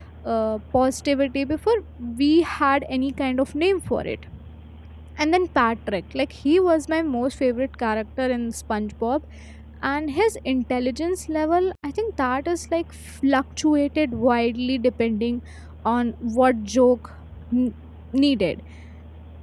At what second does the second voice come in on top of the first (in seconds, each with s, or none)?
none